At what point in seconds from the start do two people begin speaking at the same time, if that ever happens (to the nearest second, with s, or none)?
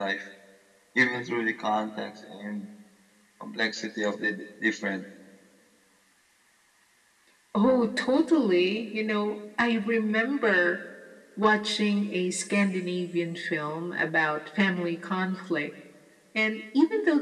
none